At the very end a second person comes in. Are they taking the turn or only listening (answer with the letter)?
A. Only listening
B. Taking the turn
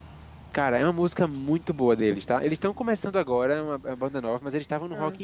A